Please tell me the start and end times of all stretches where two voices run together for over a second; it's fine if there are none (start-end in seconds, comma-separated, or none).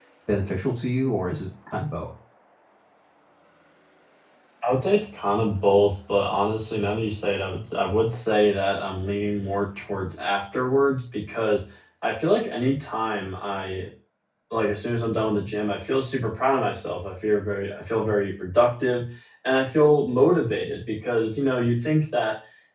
none